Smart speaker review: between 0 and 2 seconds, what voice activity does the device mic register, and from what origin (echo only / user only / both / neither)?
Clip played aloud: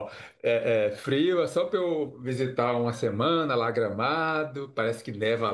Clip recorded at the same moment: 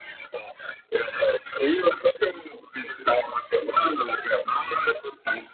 echo only